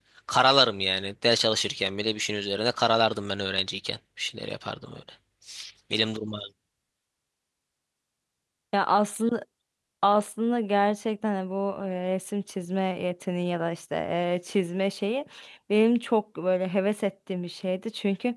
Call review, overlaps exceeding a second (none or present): none